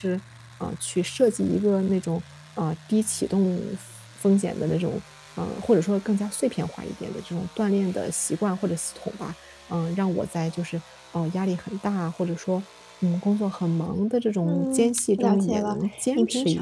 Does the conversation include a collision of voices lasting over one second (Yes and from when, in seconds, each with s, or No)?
Yes, from 14.4 s